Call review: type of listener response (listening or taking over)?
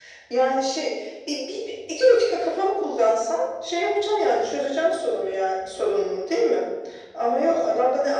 listening